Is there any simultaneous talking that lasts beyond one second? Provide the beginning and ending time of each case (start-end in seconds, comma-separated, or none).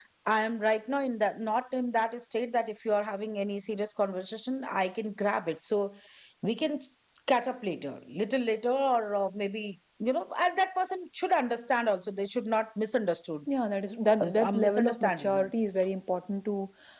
14.2-15.5